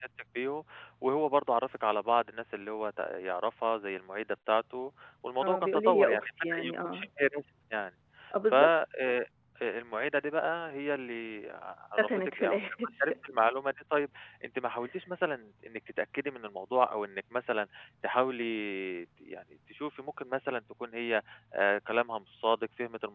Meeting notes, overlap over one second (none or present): present